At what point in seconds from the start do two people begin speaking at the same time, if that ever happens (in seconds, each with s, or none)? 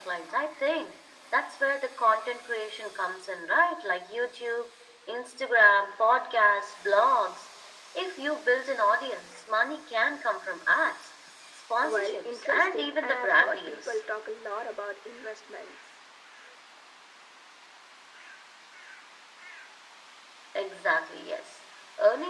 11.8 s